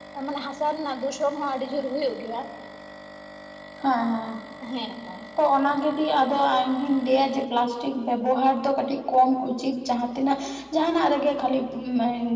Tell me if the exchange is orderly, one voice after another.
Yes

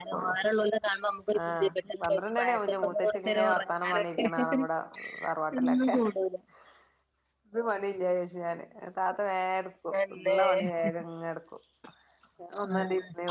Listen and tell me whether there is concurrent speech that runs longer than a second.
Yes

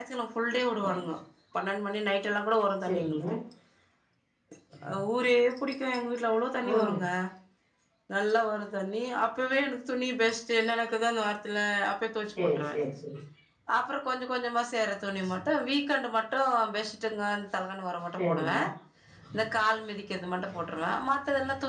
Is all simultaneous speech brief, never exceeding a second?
Yes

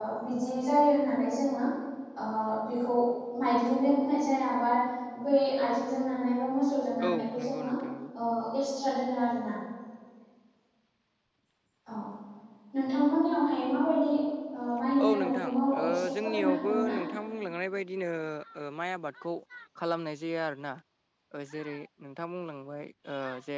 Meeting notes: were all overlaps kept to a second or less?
No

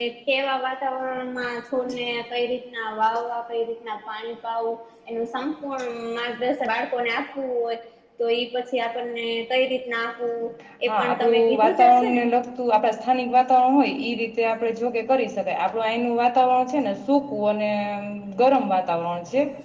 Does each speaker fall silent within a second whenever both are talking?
No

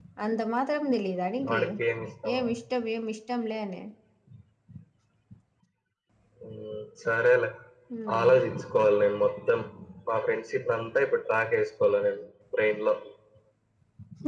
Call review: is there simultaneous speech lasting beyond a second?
No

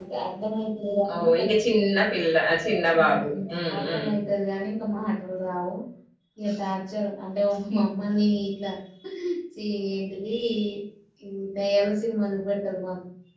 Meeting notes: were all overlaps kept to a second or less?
Yes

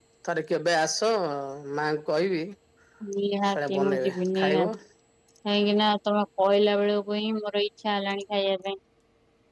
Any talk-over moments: Yes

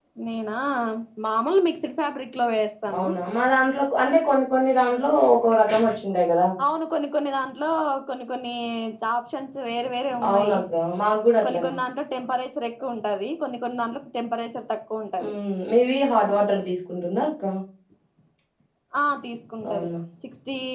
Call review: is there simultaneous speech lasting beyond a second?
No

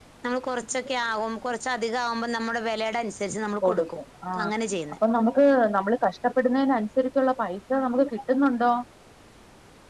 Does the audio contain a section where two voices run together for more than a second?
No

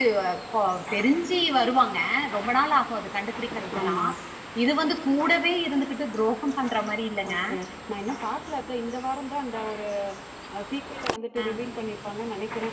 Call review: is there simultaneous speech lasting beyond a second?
No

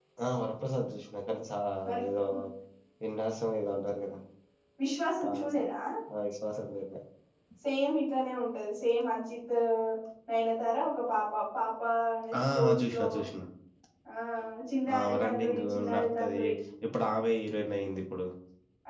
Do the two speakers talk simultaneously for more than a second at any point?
Yes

